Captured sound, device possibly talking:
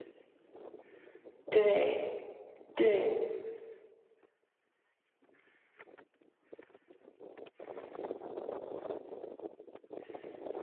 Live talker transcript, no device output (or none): 对，对，